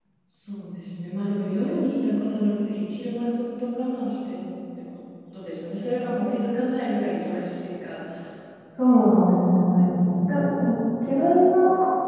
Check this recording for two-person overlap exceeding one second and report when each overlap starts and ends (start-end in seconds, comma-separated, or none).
none